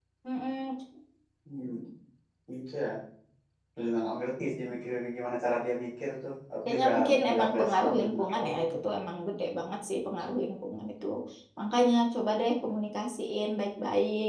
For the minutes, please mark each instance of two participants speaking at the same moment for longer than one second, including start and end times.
6.7-8.5

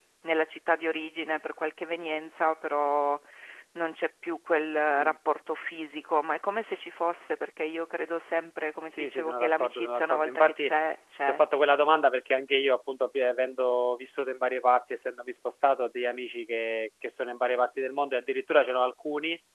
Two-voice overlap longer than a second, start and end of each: 9.0-10.7

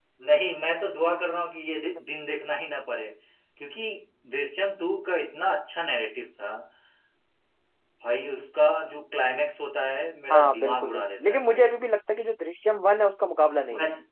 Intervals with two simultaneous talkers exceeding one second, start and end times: 10.3-11.7

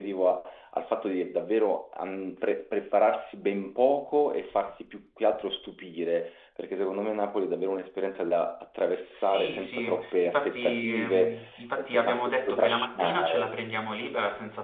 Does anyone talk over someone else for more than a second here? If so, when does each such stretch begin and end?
9.1-11.3, 11.9-13.5

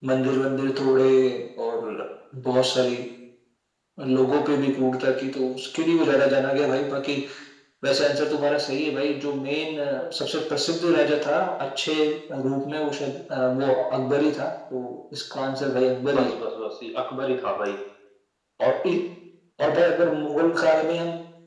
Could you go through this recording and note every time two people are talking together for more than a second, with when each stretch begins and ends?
none

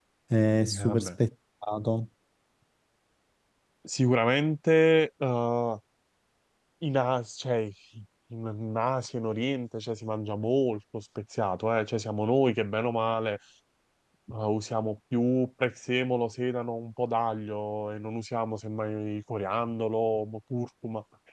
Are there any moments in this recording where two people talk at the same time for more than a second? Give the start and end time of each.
none

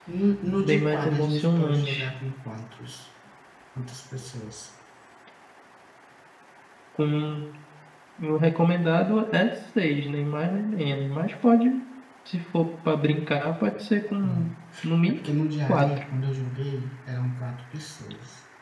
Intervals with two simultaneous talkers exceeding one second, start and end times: 0.6-2.1

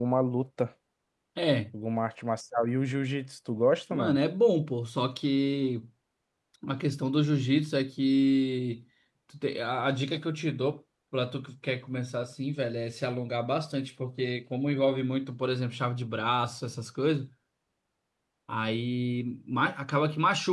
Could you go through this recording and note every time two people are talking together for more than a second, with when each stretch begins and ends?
none

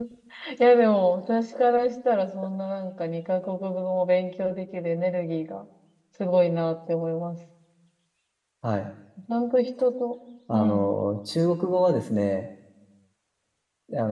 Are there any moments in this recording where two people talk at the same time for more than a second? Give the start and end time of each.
none

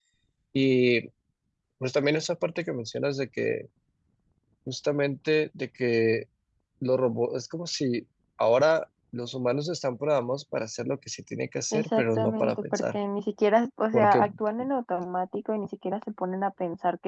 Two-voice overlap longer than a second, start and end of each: 11.7-13.0

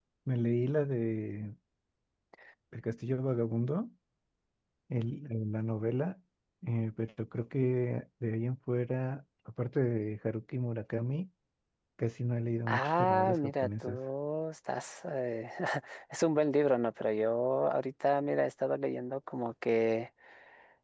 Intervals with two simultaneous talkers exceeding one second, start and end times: 12.7-14.0

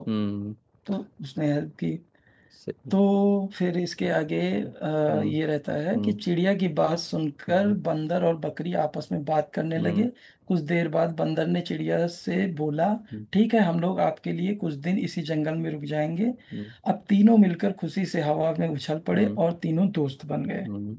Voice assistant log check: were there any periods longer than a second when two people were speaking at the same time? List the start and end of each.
none

